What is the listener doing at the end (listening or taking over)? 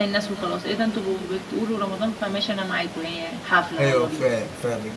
taking over